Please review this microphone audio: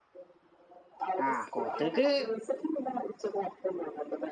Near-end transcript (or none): ആഹ് കൊതുക്